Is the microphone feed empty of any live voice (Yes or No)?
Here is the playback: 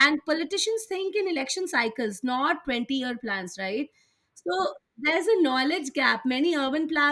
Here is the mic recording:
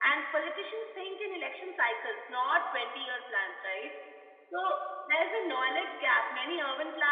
Yes